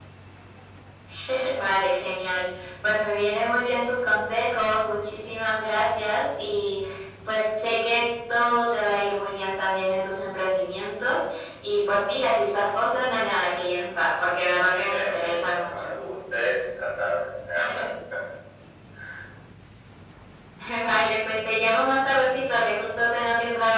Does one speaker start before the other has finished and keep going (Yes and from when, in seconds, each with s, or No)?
Yes, from 14.7 s